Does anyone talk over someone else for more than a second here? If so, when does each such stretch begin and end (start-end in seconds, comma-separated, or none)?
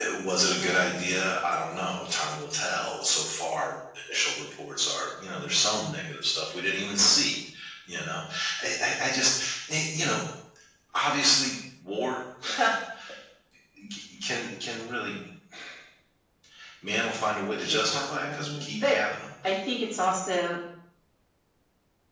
17.5-19.0